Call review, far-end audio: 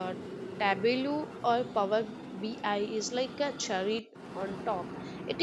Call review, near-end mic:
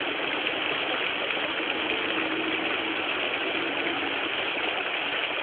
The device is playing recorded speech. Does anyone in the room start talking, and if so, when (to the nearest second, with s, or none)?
none